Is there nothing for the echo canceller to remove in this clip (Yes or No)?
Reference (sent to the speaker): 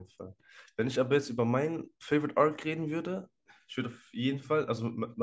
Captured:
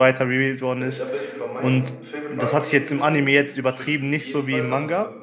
No